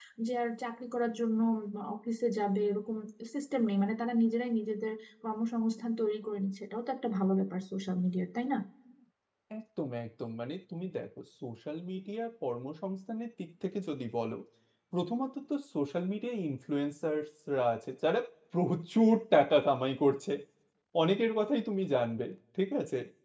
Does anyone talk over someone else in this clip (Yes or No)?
No